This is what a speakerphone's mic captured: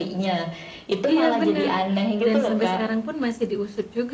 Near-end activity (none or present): present